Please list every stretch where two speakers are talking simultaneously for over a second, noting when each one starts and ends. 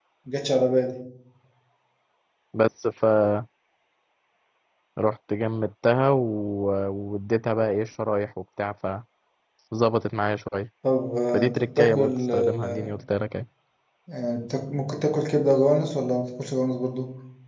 11.3-12.6

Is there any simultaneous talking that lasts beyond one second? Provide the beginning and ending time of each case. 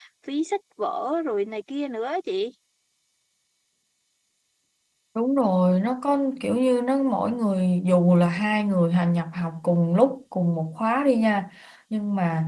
none

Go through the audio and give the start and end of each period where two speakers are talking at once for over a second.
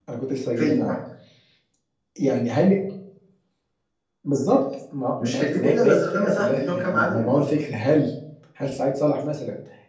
5.3-7.4

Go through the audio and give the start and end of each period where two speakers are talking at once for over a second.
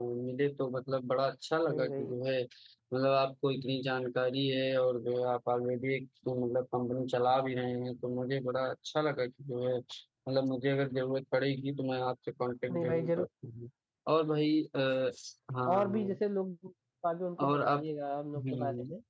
none

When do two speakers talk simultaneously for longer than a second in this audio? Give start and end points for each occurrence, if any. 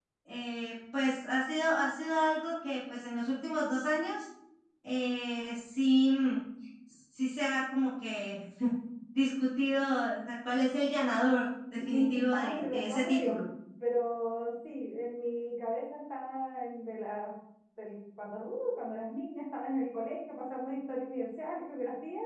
11.7-13.4

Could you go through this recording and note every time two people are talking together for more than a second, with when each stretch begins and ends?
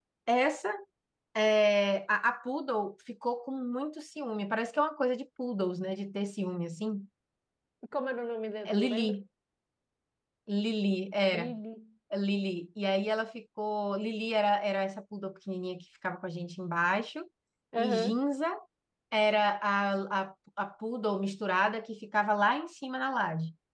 none

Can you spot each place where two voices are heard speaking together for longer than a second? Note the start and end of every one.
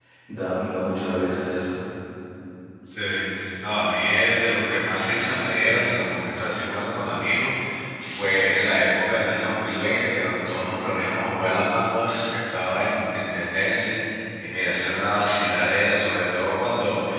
none

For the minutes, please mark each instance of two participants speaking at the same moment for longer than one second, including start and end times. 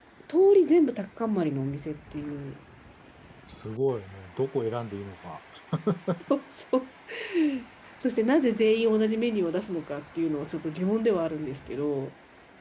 none

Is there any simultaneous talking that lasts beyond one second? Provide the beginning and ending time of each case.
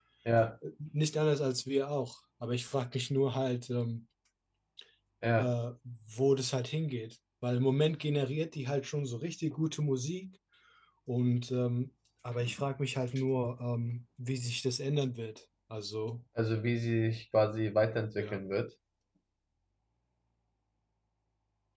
none

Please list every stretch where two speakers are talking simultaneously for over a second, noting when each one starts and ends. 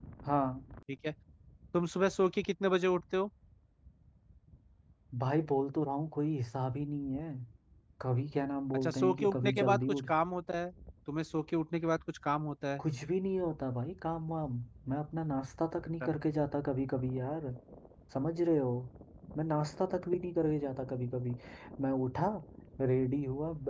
8.7-10.0

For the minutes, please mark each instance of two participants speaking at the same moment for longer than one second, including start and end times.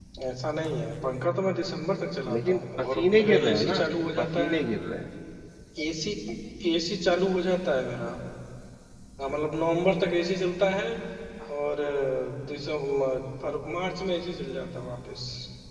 2.3-3.8

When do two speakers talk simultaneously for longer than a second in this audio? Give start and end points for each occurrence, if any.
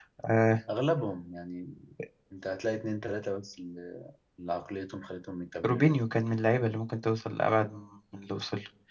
none

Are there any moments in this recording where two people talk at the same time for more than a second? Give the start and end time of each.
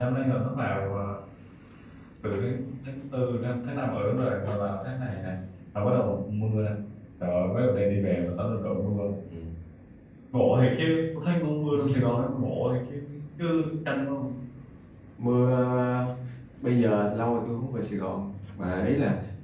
none

